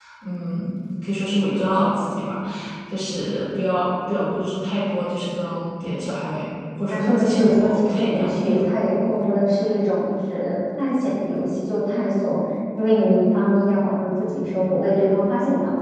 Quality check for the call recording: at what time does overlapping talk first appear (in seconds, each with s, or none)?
6.9 s